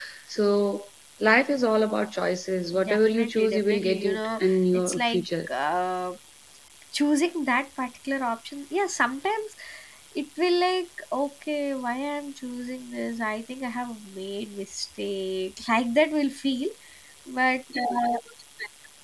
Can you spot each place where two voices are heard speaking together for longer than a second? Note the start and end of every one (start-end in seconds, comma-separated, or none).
2.9-5.5